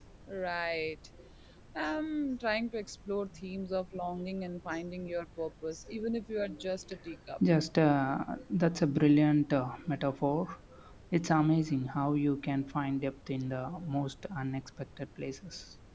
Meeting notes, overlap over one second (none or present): none